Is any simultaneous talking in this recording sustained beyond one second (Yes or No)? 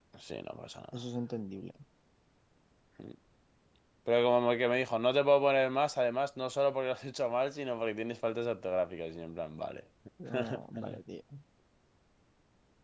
No